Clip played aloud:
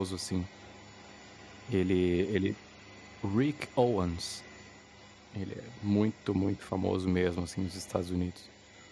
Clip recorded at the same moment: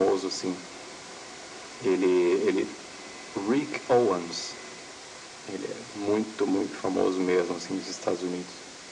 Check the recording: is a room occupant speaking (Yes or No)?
No